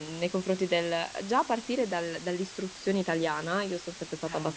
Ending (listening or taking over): listening